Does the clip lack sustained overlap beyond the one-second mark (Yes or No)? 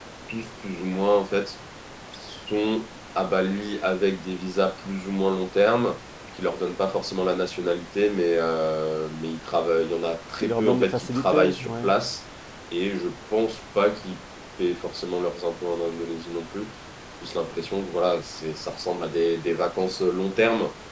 No